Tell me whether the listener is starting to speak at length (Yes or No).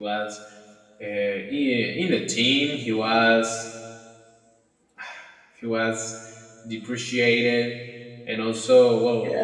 No